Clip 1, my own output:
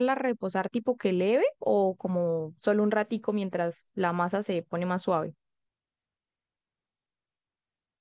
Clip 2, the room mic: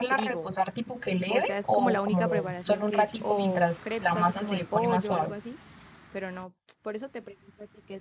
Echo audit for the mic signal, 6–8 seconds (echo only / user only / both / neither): user only